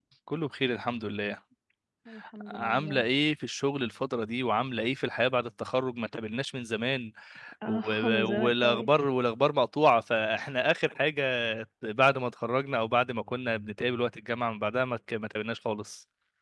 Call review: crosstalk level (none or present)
present